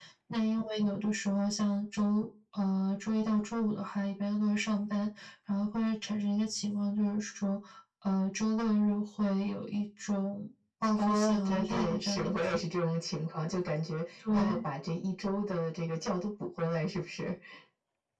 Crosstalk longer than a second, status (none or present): present